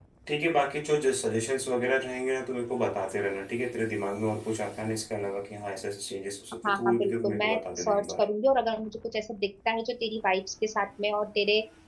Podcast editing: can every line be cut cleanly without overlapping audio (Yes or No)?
No